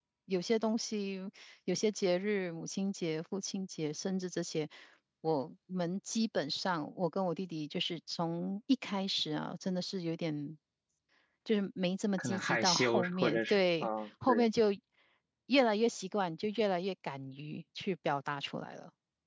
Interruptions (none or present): present